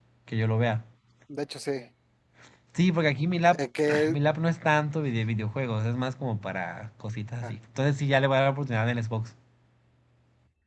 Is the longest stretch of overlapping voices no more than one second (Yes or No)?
Yes